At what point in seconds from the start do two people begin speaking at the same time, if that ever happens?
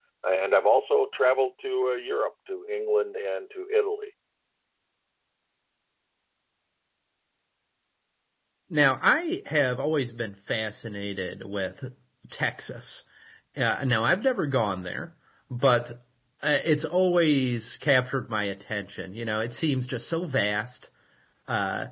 none

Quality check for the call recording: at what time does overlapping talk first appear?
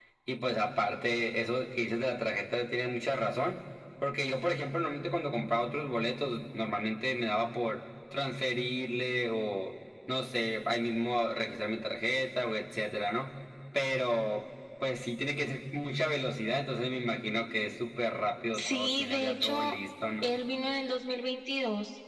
18.5 s

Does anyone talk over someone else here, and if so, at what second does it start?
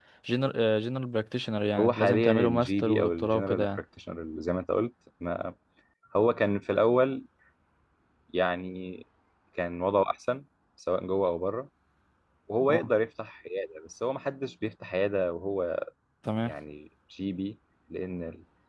1.8 s

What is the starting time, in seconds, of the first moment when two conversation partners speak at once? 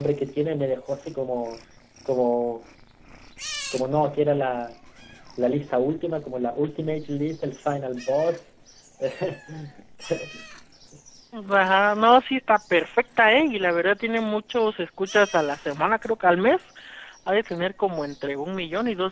none

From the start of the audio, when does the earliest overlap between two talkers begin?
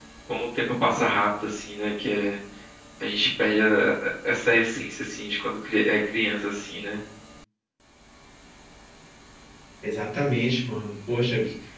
none

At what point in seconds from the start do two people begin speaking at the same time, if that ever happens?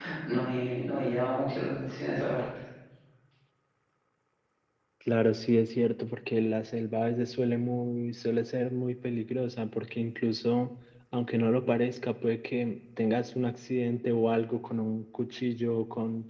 none

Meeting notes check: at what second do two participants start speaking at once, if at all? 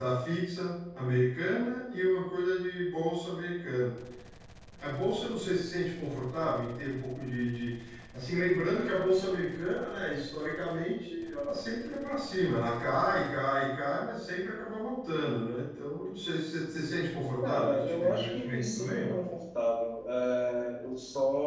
17.4 s

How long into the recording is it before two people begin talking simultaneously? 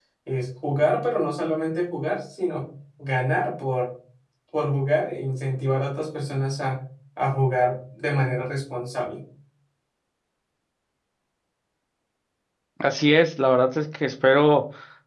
none

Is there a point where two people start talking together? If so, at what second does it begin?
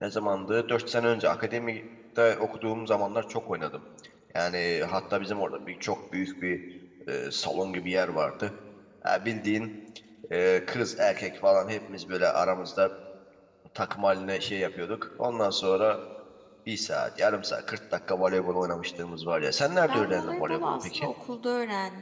19.9 s

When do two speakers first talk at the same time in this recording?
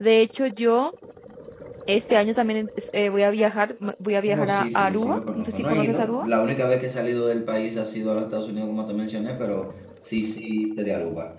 4.3 s

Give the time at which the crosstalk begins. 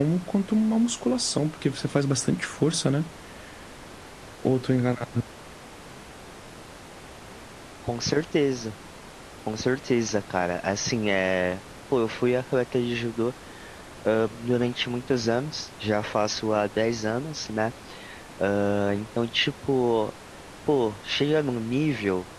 none

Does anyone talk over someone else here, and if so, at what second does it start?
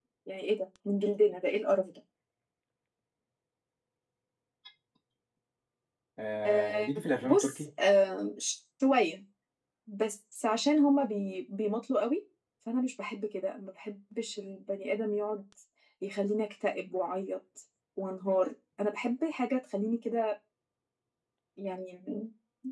6.4 s

